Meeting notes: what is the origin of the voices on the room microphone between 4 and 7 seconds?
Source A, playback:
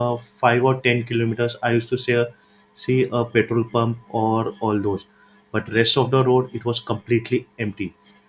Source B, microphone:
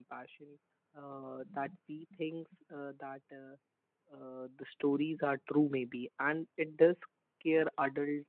user only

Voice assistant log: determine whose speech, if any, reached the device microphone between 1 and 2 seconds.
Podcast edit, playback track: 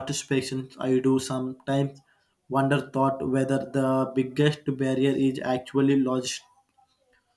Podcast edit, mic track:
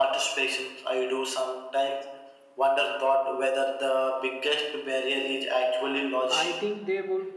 echo only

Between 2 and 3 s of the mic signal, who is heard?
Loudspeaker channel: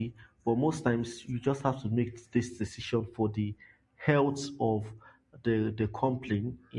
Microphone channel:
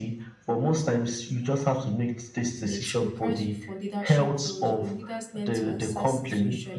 both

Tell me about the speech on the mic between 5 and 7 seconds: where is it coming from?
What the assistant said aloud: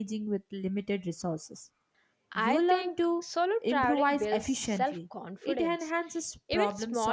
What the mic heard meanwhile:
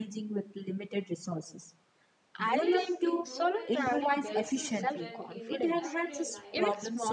both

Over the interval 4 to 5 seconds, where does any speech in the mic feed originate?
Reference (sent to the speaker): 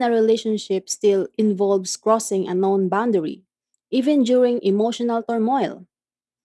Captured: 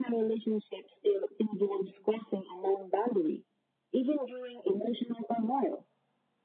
echo only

